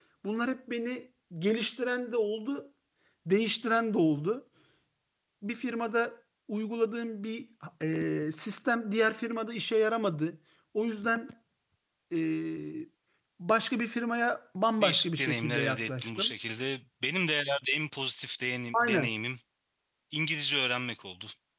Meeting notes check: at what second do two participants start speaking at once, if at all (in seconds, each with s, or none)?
14.8 s